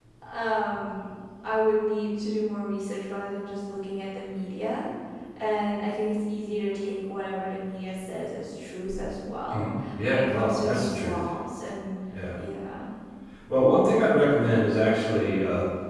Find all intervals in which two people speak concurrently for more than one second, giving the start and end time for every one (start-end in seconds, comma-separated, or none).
9.5-11.2